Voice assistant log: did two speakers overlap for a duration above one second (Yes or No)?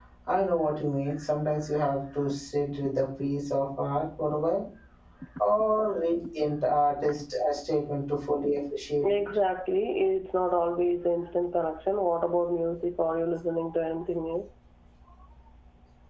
No